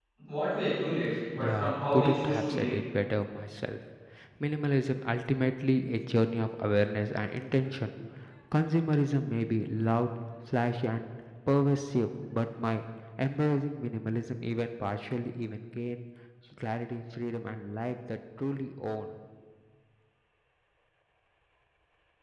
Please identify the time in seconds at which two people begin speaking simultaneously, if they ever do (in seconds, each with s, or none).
1.3 s